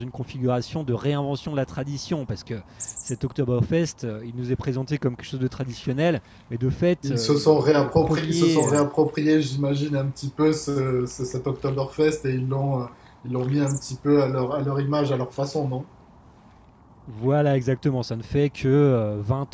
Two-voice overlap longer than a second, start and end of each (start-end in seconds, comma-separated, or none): 7.0-8.8